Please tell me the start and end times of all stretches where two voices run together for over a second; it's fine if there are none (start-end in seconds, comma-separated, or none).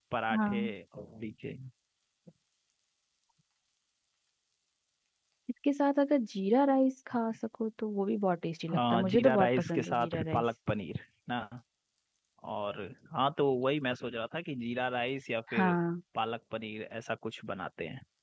8.7-10.4